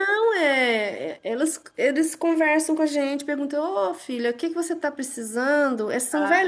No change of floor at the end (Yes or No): Yes